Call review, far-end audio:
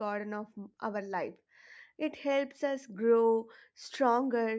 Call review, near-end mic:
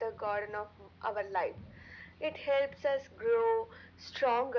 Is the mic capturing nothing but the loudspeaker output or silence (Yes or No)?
Yes